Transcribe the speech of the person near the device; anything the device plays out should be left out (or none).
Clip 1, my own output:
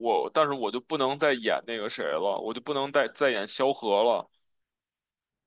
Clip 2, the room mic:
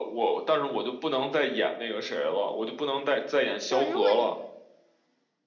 就是如果你